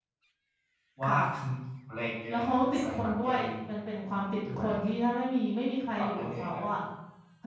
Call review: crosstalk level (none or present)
present